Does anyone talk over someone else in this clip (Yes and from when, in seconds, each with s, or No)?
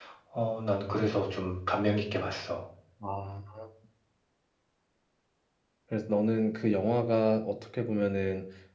No